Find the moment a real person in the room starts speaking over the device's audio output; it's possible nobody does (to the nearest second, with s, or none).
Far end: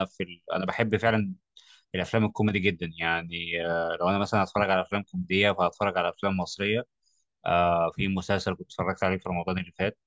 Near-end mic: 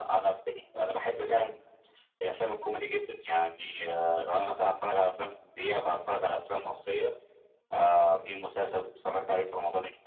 none